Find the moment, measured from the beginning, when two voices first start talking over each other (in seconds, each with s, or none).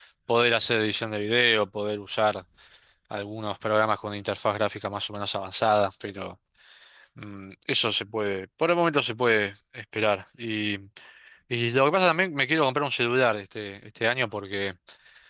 none